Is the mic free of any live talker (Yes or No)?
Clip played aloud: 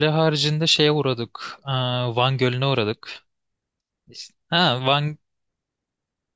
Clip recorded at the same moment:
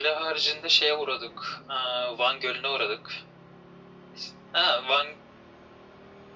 Yes